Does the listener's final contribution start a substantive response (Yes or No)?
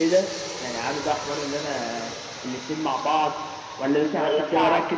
No